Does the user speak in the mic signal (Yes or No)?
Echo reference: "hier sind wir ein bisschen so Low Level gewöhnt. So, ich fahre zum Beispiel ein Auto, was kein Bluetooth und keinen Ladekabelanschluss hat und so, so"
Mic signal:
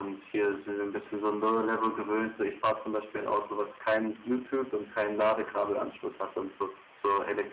No